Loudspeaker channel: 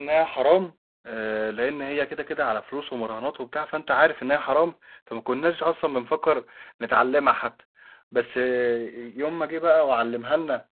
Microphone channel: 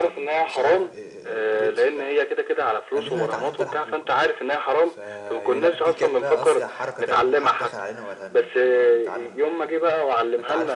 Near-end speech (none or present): present